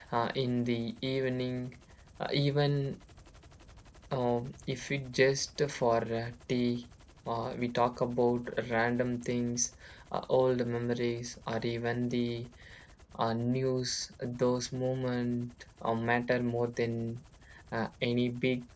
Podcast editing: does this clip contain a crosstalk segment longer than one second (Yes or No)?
No